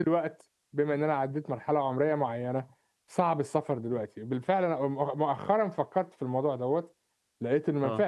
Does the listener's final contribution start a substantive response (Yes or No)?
No